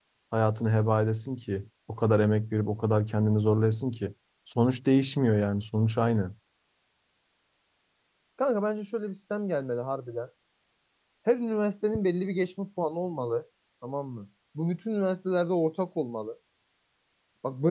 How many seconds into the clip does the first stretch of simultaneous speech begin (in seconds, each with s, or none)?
none